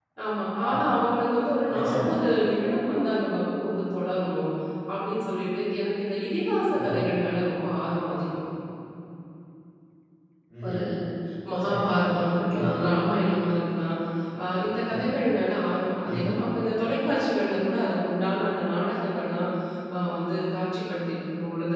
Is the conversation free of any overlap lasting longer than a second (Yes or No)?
Yes